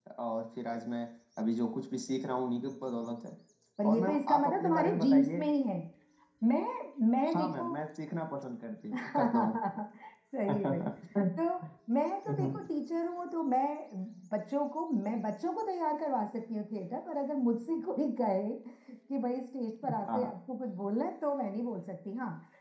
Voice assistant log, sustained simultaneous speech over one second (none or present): present